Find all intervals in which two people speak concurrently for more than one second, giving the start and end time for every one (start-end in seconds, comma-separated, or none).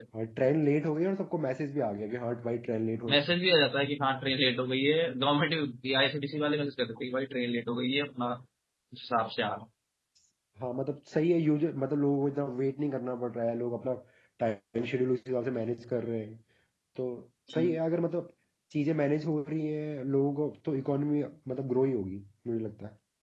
none